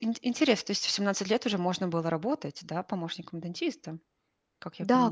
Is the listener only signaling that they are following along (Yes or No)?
No